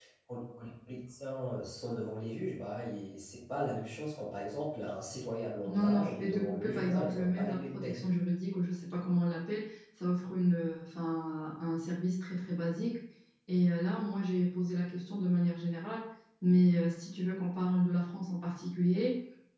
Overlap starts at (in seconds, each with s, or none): 5.7 s